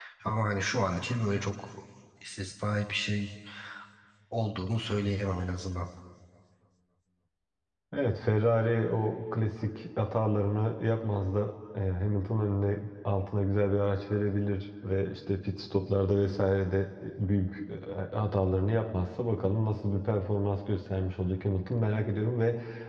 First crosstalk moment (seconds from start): none

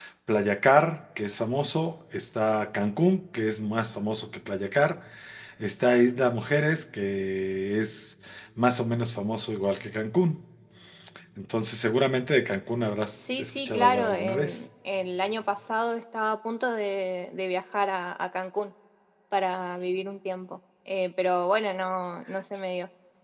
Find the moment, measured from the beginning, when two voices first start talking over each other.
13 s

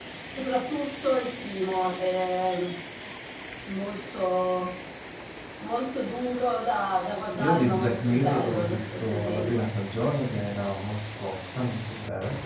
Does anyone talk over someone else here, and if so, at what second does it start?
7 s

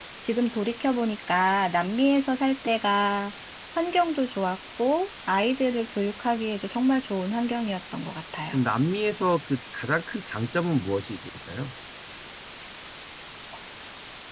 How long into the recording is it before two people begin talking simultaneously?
none

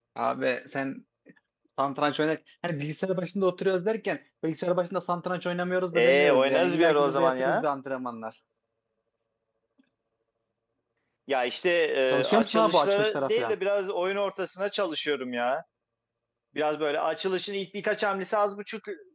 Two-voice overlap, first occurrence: 6 s

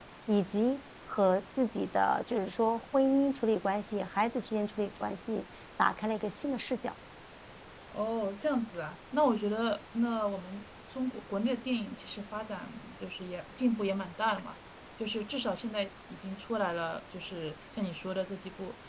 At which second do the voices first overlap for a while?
none

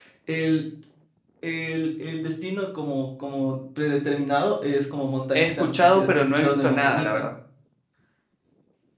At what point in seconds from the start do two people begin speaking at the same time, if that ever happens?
5 s

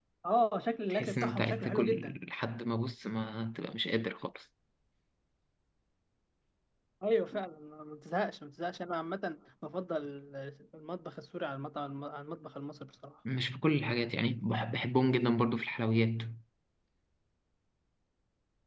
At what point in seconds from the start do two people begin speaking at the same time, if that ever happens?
1 s

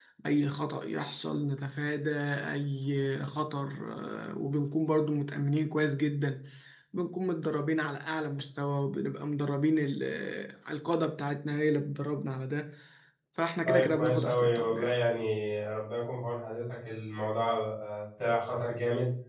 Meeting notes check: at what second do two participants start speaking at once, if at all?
14 s

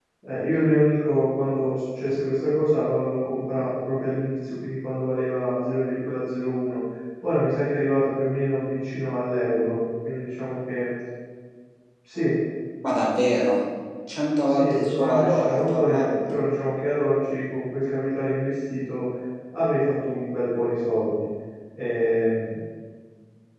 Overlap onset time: 14 s

